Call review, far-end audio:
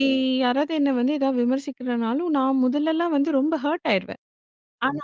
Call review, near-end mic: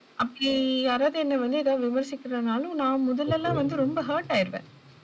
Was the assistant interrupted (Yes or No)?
Yes